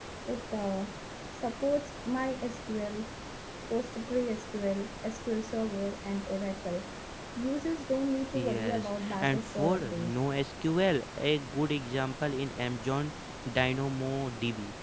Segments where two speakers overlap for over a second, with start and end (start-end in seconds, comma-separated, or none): 8.3-10.1